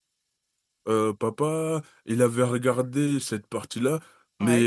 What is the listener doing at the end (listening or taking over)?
listening